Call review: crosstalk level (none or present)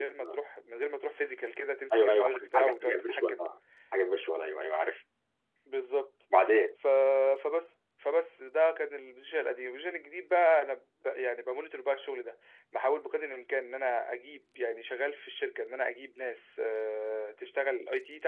present